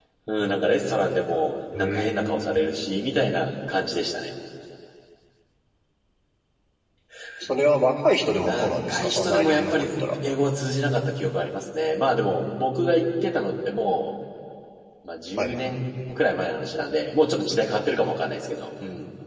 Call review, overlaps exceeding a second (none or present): present